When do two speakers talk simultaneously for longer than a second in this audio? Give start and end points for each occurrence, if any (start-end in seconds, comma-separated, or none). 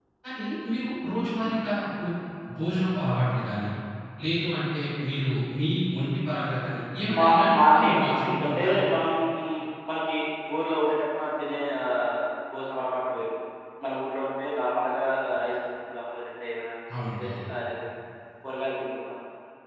7.2-8.8